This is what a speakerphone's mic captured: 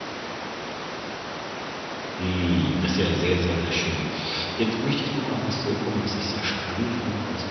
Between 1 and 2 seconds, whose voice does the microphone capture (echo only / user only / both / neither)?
neither